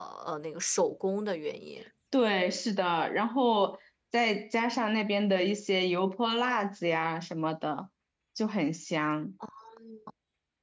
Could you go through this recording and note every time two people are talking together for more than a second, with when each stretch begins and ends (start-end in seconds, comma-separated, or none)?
none